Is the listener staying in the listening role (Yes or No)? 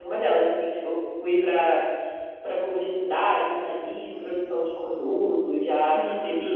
Yes